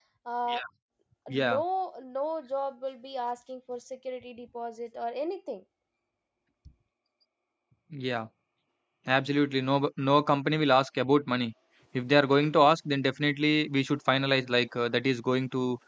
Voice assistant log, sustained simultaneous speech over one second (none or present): none